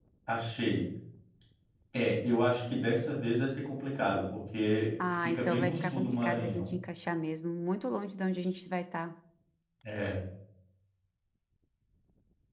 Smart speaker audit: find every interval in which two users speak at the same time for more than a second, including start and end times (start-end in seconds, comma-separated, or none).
5.0-6.7